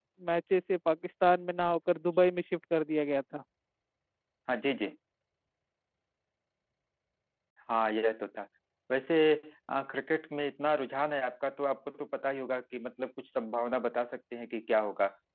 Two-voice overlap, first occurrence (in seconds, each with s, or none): none